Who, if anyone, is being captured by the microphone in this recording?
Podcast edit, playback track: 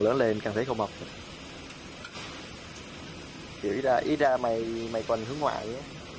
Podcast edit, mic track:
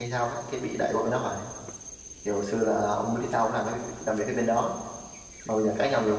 user only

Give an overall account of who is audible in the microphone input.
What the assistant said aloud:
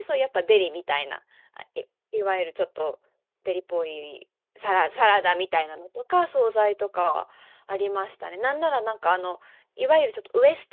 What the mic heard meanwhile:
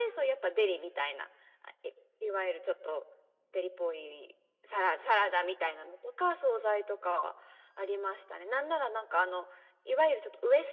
echo only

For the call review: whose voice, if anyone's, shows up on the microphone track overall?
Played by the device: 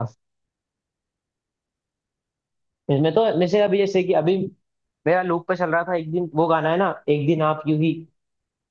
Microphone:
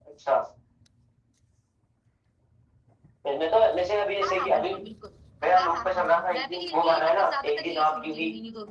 both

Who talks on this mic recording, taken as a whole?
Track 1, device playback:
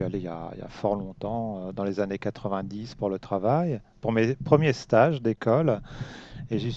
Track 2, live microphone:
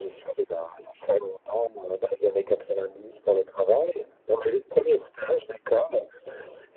echo only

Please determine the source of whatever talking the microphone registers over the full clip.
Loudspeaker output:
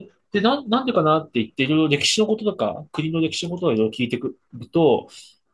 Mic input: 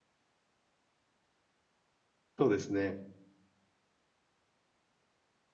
user only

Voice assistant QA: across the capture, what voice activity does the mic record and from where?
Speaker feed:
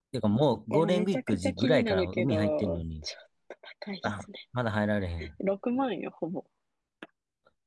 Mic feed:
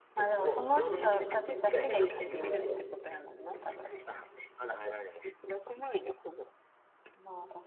both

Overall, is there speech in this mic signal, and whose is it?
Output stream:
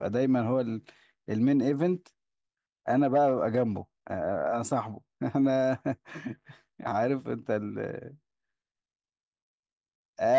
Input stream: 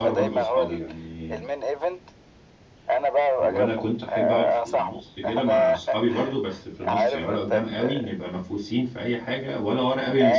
both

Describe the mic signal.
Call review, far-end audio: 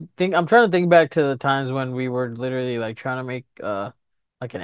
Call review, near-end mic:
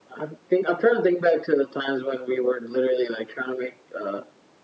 echo only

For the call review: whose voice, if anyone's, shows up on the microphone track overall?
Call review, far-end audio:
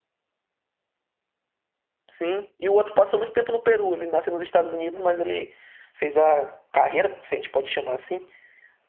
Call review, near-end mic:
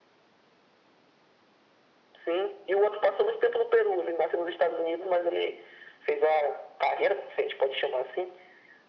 echo only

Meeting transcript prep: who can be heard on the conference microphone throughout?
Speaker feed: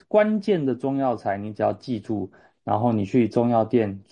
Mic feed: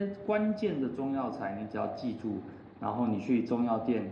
echo only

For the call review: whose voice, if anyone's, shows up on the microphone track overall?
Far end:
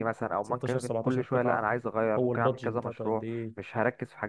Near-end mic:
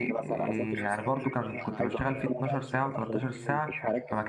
both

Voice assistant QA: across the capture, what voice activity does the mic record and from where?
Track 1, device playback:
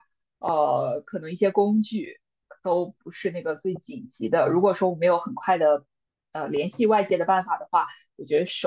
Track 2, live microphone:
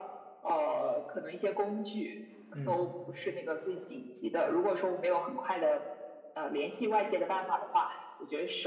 both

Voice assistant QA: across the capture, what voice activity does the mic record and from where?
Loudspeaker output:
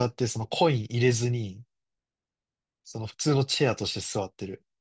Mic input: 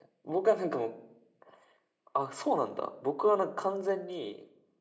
user only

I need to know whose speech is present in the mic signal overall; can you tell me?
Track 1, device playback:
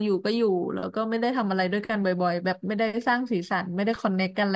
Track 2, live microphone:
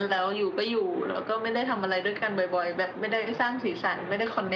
echo only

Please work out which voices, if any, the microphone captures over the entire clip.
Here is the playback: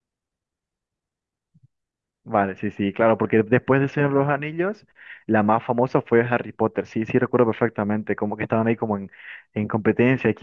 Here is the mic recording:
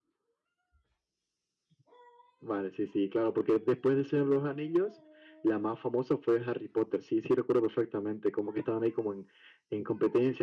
echo only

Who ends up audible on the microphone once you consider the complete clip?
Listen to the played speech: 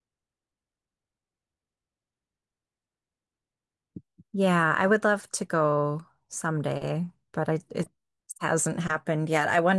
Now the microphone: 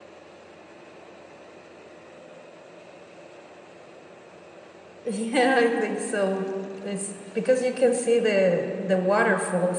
user only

